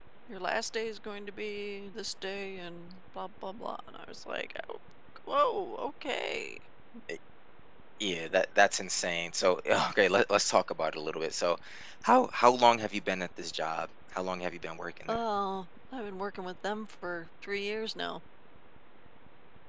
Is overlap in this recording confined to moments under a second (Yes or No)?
Yes